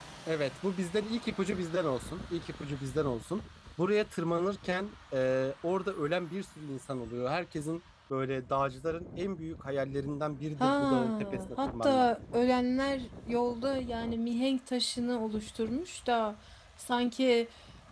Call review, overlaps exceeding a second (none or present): present